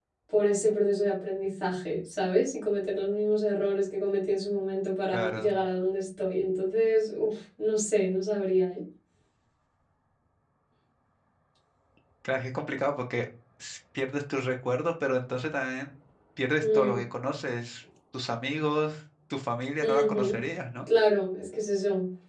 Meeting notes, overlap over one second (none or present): none